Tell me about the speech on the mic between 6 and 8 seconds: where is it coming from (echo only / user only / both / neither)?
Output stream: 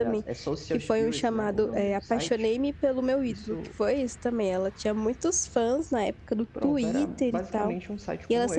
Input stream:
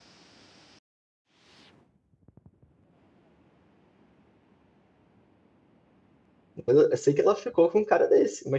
user only